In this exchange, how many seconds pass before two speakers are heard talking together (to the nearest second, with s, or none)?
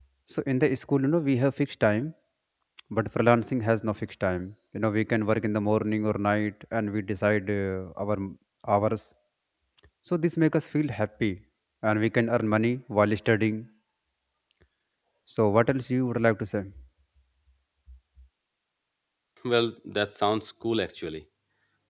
none